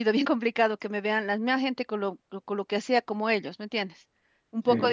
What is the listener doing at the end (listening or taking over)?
listening